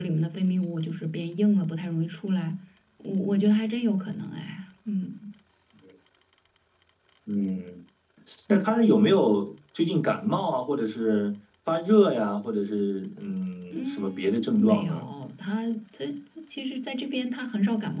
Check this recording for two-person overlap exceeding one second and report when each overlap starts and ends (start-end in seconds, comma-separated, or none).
13.7-15.1